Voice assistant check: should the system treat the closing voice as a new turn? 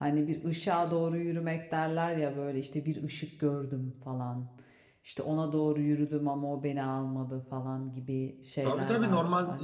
Yes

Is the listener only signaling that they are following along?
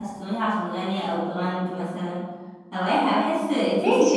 No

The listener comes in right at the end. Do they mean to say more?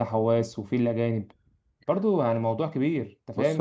Yes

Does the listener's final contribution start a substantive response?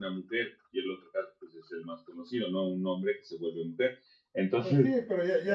Yes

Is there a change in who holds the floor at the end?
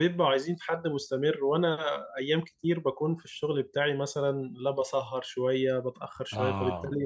No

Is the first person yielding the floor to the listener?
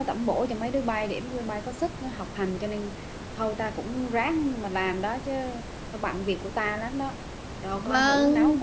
Yes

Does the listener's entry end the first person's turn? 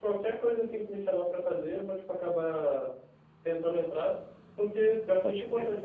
No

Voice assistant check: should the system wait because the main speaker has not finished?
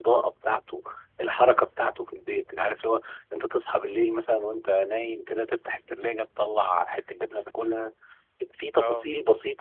Yes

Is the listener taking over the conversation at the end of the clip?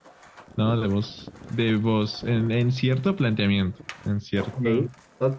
Yes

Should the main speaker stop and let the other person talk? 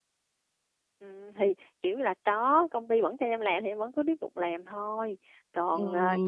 No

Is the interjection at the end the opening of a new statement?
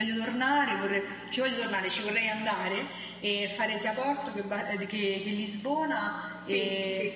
No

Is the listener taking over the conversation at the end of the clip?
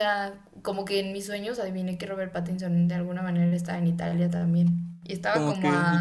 Yes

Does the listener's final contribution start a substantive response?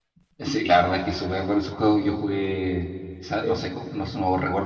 No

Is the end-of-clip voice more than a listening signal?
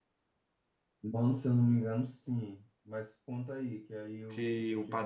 Yes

